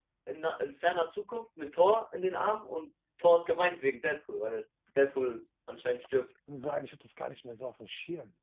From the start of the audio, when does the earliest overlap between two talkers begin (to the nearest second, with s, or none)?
none